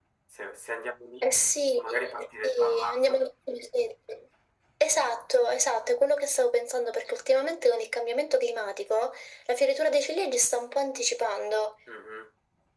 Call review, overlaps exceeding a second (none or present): present